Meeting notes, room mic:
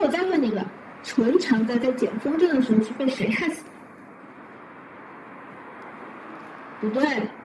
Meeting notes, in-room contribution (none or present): none